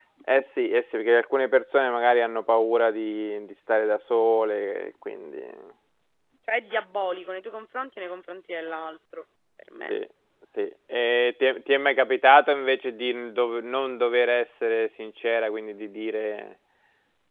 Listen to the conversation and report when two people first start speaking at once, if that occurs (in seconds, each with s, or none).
none